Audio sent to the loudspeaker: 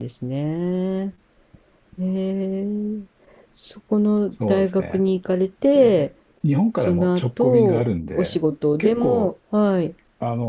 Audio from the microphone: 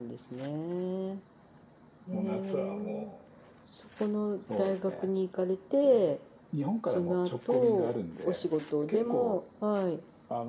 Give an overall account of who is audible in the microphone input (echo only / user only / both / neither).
both